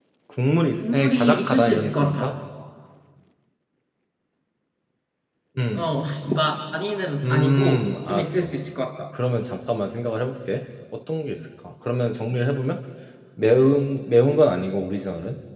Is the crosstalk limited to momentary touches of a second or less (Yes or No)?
No